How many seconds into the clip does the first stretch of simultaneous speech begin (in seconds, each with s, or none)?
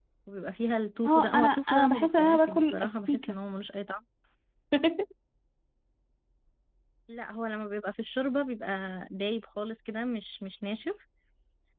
1.1 s